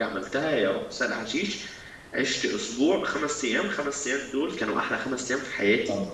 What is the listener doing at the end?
taking over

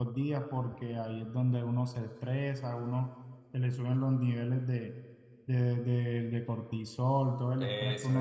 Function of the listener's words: taking over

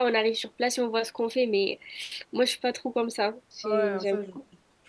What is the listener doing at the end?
taking over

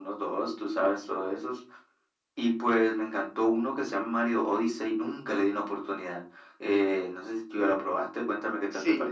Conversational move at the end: taking over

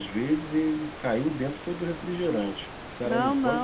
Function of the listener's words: taking over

